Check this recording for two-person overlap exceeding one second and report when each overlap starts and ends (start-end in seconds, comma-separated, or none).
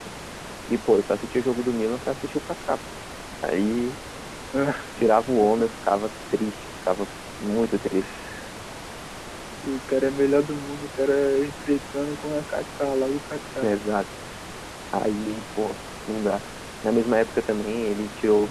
none